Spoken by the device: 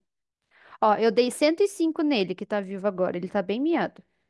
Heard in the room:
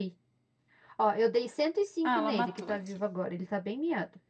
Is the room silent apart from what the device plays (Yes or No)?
No